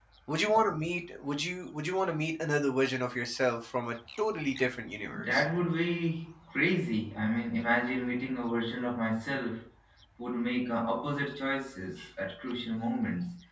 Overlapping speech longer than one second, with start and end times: none

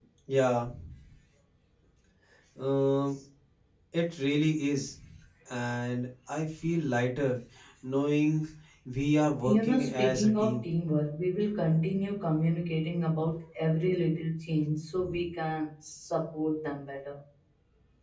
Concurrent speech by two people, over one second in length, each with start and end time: 9.4-10.6

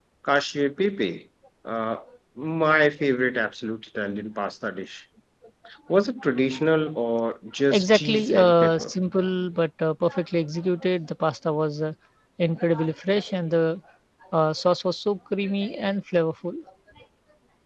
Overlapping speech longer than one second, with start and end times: 7.7-8.9

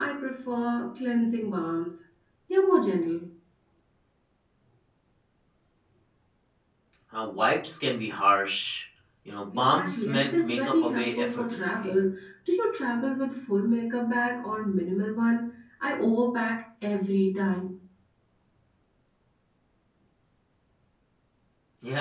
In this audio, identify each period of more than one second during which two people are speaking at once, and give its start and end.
9.5-11.9

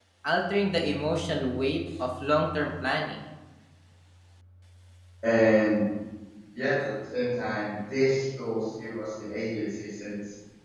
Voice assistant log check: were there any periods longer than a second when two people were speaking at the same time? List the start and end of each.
none

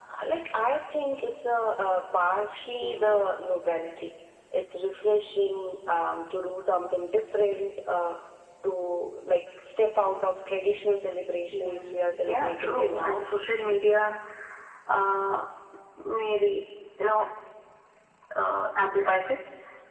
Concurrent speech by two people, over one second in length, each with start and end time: 11.5-13.2

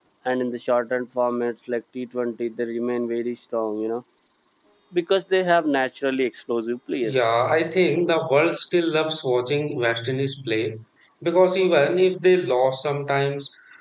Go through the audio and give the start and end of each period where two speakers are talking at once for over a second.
none

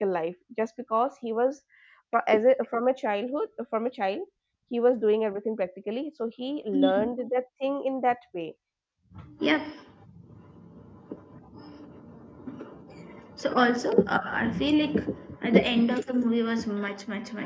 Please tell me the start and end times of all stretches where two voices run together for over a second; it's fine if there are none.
none

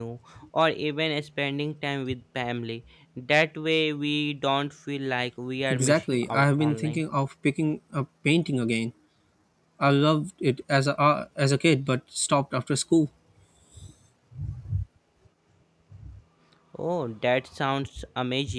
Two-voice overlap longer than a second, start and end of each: 5.7-7.0

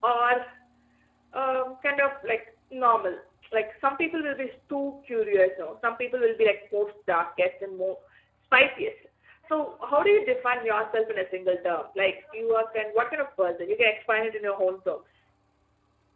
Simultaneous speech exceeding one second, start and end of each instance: none

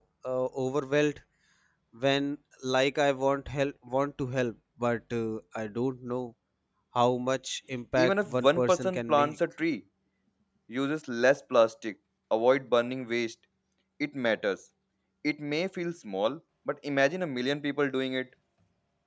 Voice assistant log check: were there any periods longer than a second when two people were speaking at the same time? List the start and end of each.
8.0-9.4

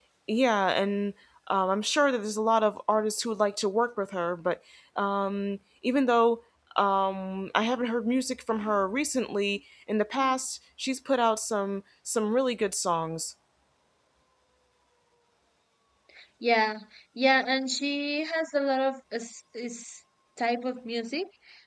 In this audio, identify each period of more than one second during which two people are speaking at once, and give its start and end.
none

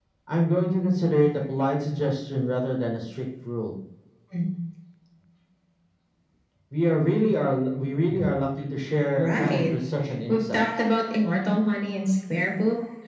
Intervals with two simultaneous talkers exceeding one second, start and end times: none

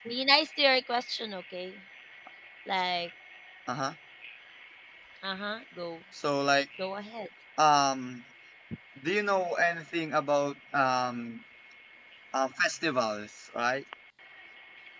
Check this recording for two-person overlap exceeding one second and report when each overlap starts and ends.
none

